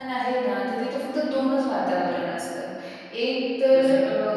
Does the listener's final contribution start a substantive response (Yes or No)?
No